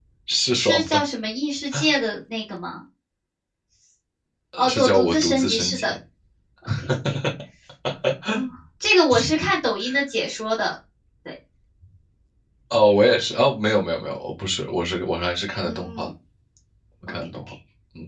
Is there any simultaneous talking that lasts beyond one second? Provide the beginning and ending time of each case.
4.6-6.0

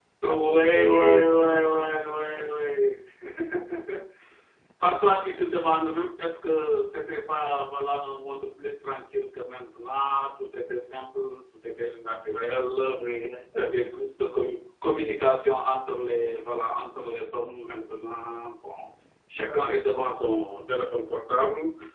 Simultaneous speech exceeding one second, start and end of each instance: 0.5-1.9

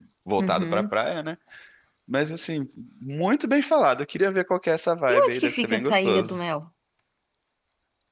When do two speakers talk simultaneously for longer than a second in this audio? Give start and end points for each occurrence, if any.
5.1-6.4

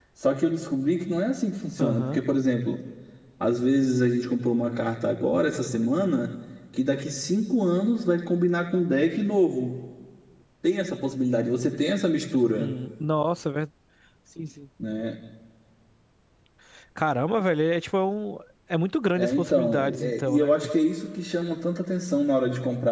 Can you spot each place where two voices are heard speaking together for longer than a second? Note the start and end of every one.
19.1-20.5

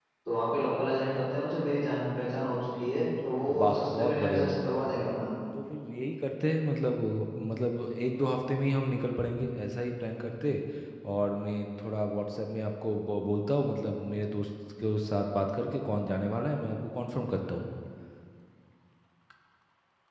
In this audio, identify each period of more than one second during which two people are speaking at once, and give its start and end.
3.6-4.9

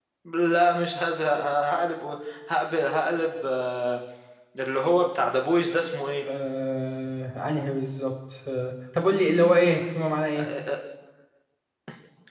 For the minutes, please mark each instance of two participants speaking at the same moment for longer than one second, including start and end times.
none

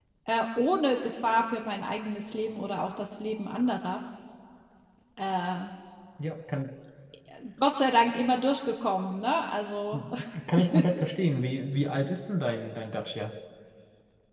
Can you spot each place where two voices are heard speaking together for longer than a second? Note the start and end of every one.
none

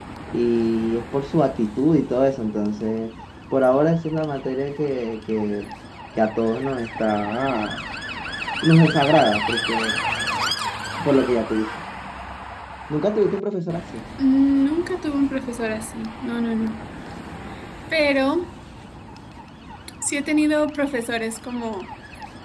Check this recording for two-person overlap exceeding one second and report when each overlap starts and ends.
none

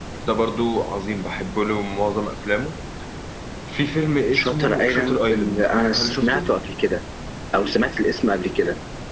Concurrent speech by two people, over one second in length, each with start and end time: 4.3-6.5

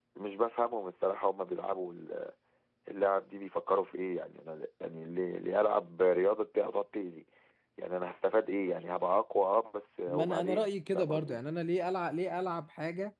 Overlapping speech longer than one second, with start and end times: 10.1-11.4

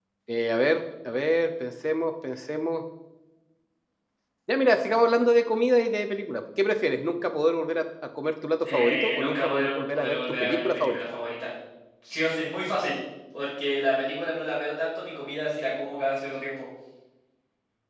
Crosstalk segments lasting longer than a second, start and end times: 8.6-11.0

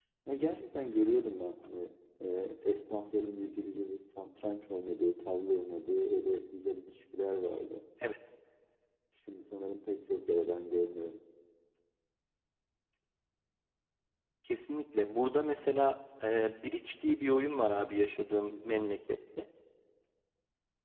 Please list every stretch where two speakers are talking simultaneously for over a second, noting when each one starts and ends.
none

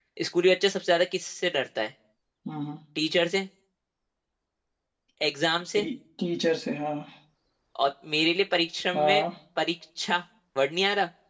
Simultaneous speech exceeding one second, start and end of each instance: none

